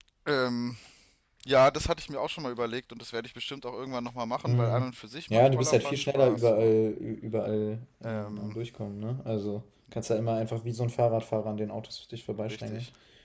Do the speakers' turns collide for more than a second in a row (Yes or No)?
Yes